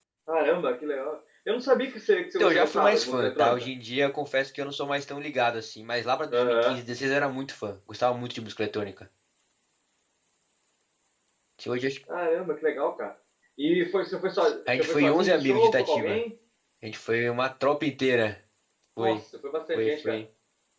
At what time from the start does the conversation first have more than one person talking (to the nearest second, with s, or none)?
2 s